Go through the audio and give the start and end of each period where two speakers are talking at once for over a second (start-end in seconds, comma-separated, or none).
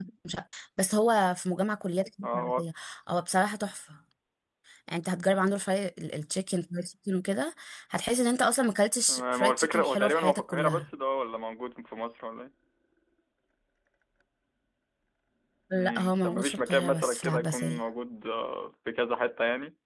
9.1-10.8, 15.7-17.8